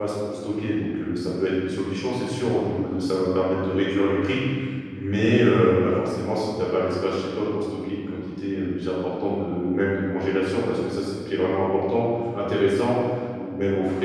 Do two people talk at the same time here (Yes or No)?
No